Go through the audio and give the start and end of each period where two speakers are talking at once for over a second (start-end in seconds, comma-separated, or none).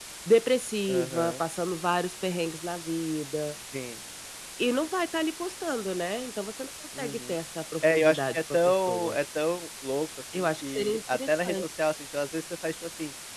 7.8-9.2, 10.3-11.6